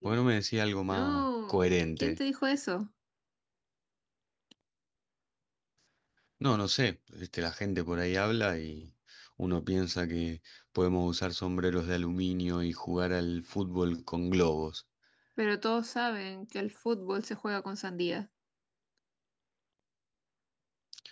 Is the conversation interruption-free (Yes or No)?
No